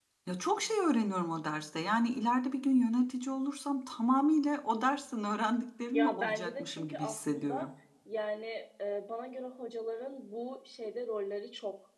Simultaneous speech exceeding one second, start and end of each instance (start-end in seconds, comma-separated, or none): 5.9-7.6